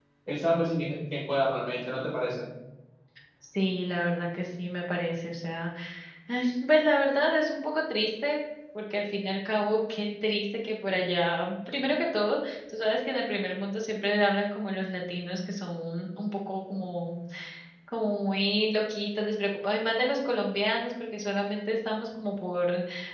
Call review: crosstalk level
none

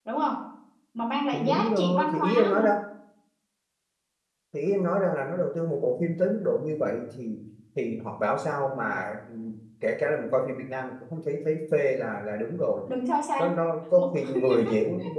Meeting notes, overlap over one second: present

